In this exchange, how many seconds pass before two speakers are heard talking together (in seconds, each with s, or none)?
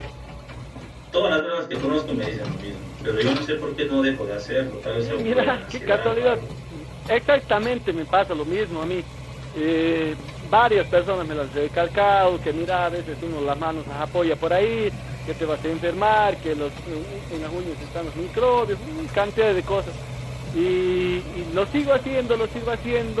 5.0 s